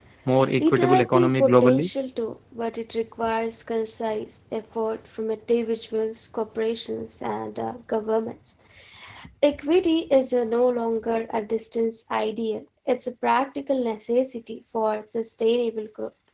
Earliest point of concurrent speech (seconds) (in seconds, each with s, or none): 0.6 s